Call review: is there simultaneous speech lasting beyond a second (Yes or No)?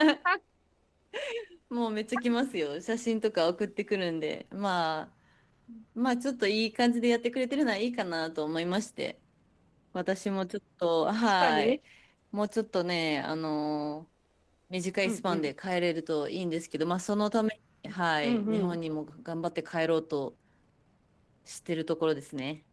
No